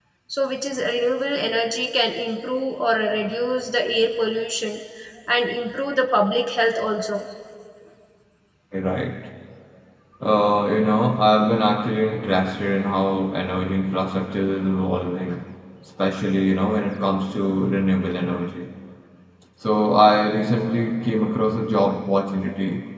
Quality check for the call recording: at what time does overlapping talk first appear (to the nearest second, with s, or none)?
none